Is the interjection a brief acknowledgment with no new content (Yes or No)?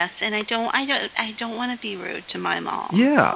No